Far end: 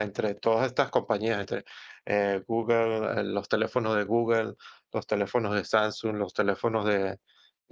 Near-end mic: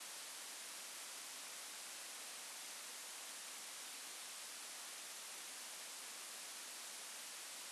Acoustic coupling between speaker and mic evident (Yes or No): No